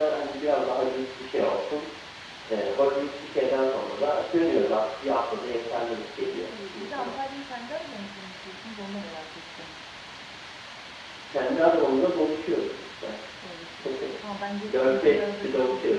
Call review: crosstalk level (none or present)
present